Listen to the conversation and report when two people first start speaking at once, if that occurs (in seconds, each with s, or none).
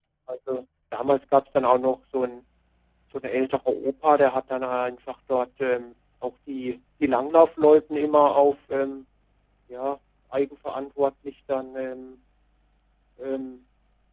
none